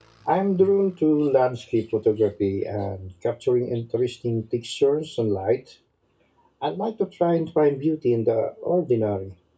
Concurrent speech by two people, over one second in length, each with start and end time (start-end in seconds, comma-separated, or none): none